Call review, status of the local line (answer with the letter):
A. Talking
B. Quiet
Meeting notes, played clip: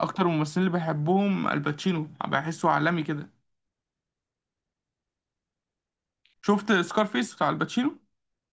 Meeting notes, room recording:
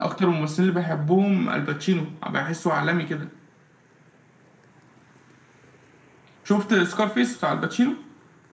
B